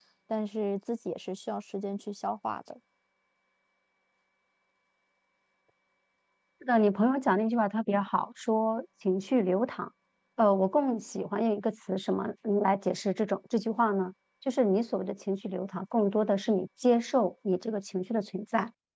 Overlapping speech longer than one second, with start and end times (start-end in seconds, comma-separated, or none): none